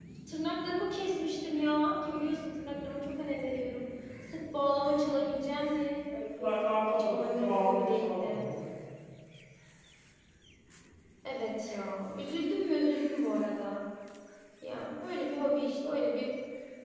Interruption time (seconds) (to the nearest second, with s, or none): 6 s